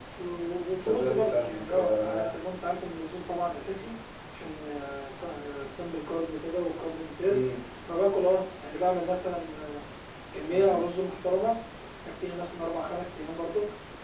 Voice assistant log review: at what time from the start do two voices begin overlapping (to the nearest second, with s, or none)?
1 s